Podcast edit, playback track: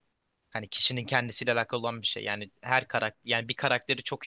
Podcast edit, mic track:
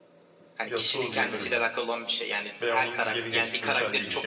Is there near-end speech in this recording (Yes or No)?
Yes